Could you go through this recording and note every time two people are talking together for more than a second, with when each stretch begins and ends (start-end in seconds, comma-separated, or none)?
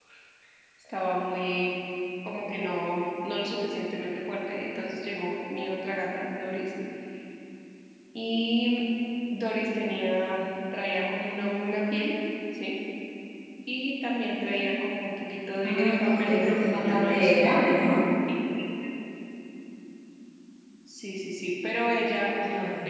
15.6-17.3